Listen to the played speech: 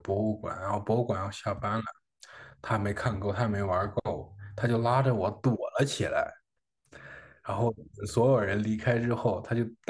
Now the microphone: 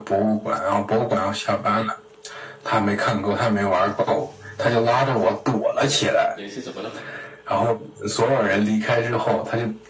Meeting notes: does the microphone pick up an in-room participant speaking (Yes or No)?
Yes